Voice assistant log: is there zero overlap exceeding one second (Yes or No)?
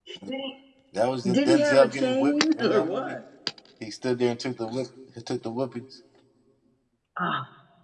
No